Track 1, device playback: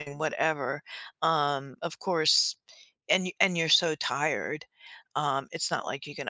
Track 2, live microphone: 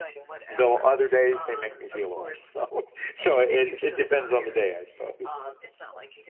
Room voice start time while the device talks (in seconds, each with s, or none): 0.5 s